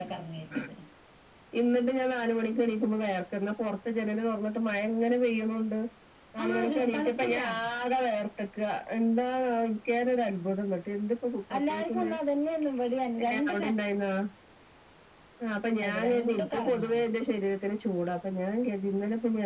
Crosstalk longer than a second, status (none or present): present